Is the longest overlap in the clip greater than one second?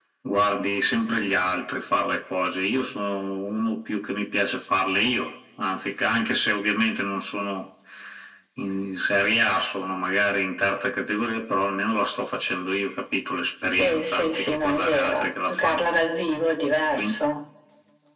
Yes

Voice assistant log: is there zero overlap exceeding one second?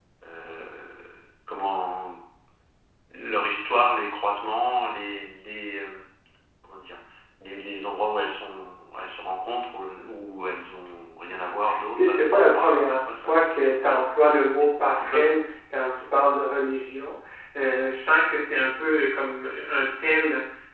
No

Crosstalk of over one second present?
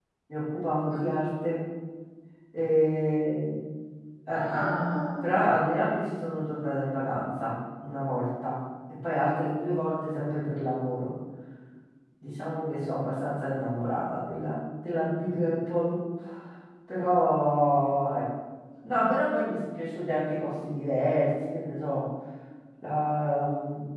No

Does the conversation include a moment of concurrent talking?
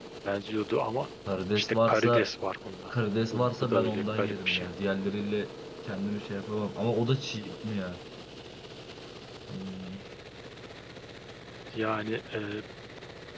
Yes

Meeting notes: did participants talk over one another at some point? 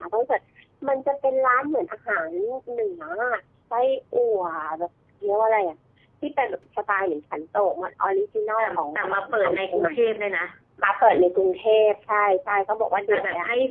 Yes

